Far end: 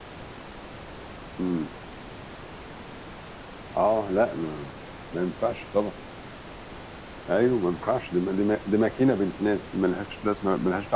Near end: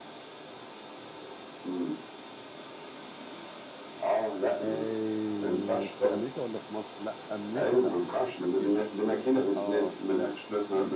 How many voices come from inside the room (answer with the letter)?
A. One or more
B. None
A